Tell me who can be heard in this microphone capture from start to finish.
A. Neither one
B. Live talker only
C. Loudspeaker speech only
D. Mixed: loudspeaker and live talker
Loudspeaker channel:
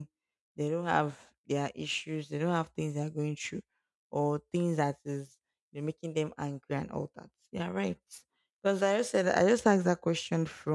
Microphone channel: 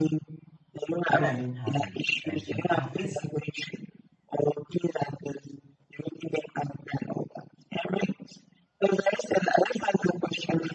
D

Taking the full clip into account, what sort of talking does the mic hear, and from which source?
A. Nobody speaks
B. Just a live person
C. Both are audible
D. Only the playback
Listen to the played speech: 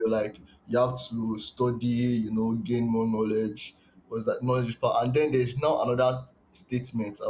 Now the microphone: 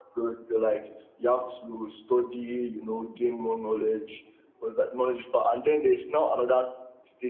D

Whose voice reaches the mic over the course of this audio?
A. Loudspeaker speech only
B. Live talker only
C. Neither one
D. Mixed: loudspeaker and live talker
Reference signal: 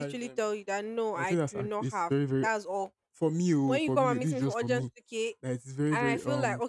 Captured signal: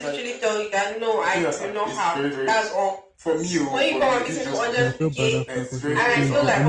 D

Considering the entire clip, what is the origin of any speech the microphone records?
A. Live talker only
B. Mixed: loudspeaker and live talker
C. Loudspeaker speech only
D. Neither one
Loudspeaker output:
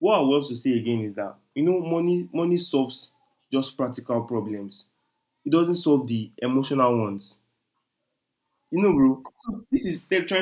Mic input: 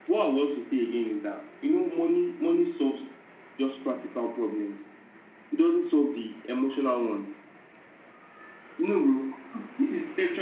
C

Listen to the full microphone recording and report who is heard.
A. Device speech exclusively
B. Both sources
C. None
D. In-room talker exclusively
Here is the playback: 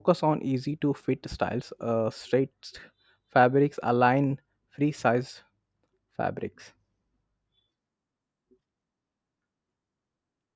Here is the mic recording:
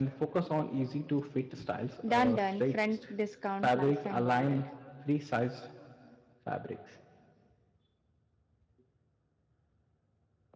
B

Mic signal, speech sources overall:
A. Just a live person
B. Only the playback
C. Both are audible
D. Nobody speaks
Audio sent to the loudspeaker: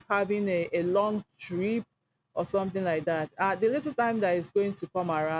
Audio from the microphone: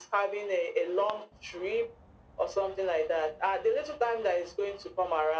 B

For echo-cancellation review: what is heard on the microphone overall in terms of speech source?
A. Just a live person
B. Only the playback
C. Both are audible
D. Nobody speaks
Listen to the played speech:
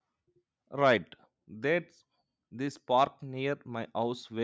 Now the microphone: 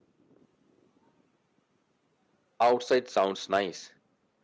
A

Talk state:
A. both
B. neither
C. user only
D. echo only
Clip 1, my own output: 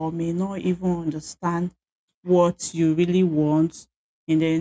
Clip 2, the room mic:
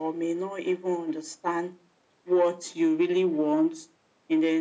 D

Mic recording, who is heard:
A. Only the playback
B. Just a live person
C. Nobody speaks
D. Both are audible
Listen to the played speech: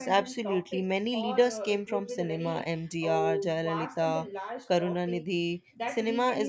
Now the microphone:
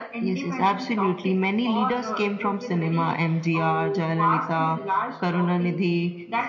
A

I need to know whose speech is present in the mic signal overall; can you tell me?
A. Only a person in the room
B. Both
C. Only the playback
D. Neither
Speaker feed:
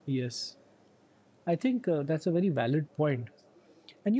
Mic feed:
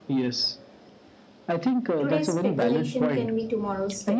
B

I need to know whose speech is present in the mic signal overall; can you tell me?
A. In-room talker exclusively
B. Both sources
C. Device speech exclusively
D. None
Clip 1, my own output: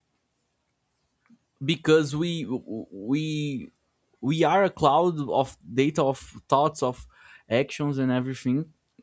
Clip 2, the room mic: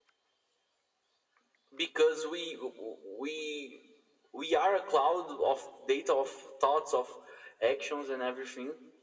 C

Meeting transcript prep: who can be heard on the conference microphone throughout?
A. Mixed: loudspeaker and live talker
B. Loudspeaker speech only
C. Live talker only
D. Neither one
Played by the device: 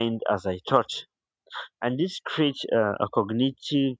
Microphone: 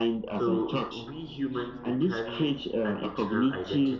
A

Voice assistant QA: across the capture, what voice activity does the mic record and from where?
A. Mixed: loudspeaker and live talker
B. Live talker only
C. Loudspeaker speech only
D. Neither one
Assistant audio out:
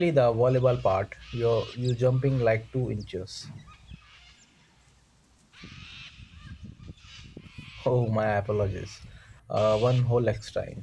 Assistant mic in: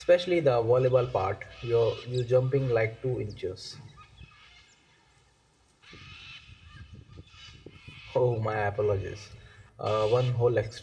C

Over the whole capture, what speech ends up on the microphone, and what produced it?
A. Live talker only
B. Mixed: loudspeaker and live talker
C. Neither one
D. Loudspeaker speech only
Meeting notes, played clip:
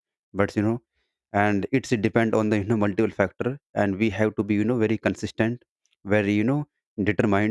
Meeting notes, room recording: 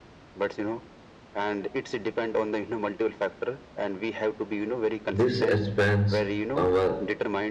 B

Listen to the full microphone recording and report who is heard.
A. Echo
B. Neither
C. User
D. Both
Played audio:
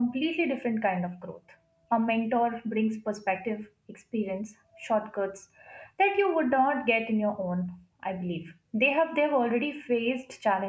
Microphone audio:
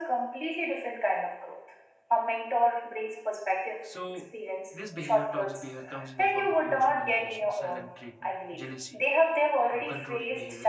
D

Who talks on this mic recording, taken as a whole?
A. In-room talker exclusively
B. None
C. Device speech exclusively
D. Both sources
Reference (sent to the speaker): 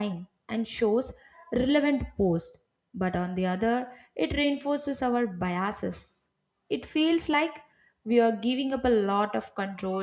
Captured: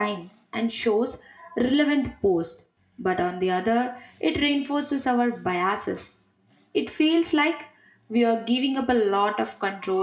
C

